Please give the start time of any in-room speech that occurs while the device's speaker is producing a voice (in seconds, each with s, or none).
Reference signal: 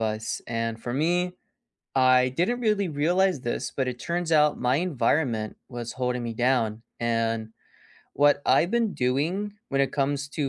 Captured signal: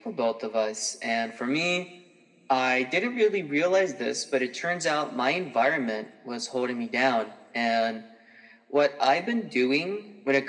none